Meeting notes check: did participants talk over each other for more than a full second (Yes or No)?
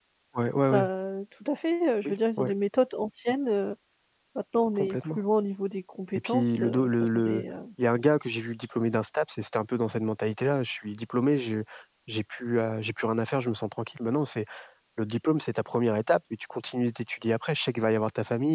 Yes